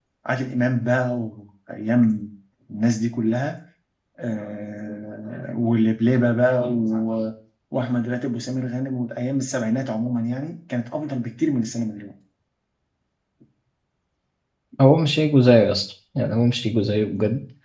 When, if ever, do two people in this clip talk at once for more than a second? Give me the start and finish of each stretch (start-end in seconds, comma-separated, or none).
none